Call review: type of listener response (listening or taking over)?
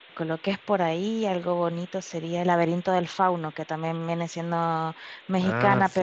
listening